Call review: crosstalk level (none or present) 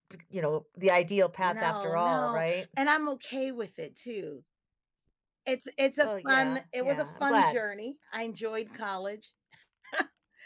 present